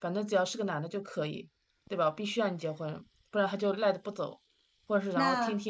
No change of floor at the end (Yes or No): Yes